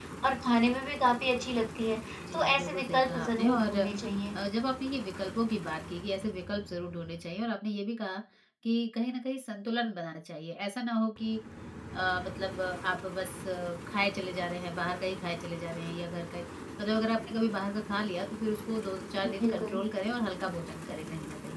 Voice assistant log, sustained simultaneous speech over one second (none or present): present